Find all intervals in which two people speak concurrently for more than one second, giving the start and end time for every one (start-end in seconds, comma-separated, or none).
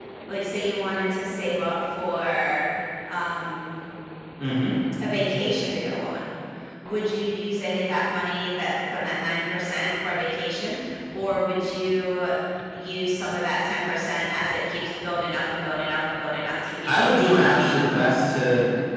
16.9-18.1